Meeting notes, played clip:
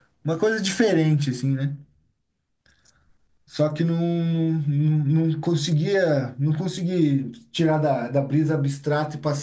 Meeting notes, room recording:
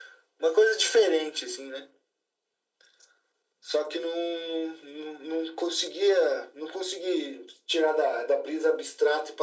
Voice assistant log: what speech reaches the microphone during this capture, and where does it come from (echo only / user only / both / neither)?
echo only